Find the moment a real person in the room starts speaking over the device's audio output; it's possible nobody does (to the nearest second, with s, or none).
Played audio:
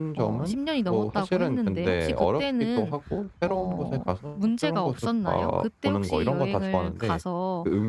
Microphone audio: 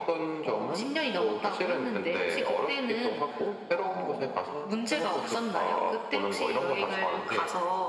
none